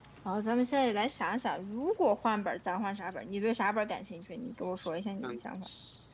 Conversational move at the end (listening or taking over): taking over